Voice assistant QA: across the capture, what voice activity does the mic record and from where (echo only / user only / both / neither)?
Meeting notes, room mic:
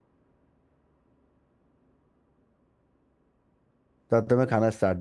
user only